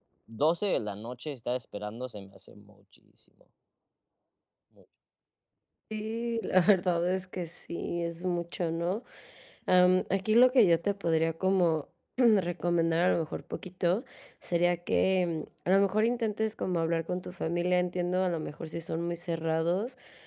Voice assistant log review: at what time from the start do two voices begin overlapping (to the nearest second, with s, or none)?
none